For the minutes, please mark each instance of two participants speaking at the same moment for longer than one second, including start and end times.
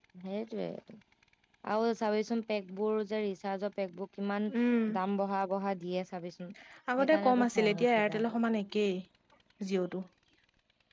7.0-8.4

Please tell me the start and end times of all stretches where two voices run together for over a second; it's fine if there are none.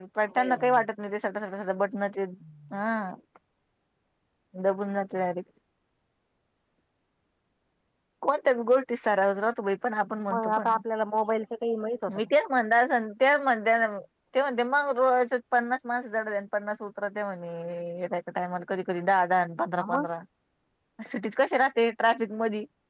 none

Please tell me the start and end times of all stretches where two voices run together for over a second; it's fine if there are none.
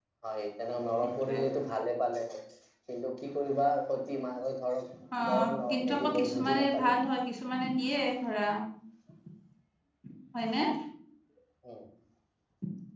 5.7-7.0

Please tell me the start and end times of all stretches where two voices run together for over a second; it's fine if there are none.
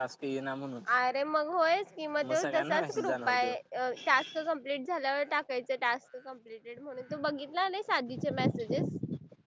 2.3-3.5

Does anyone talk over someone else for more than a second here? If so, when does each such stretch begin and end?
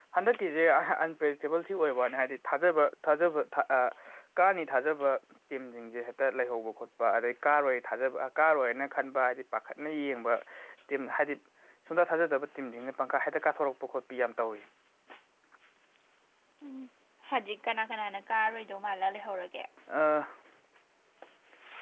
none

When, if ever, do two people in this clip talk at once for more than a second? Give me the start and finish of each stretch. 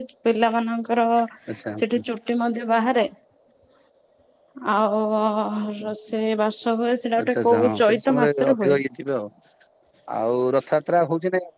7.2-8.8

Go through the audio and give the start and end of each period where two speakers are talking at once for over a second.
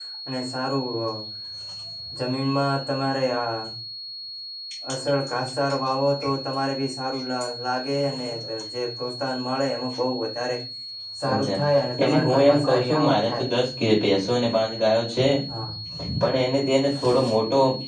12.2-13.5

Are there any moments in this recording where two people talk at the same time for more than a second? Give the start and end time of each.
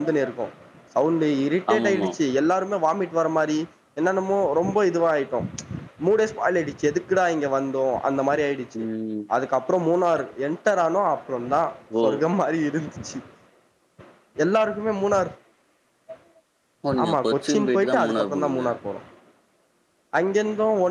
17.0-18.7

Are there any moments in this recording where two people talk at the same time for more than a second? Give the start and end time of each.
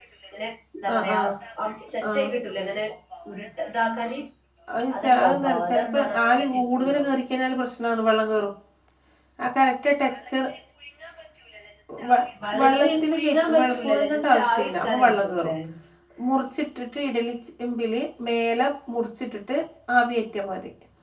4.9-7.0, 12.6-15.5

